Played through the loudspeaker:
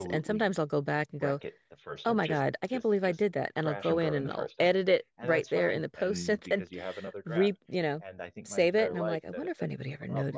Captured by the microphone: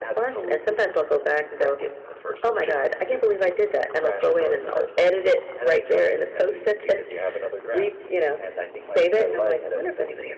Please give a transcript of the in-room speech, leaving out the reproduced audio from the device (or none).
none